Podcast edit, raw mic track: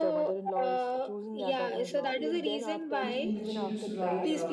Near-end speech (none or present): present